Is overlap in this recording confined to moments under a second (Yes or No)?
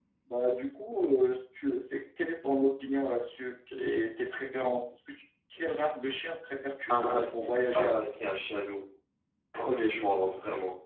No